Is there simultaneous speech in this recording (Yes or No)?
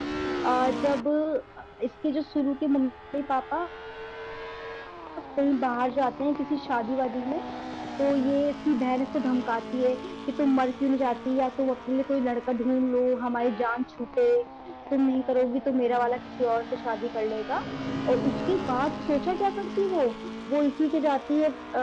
No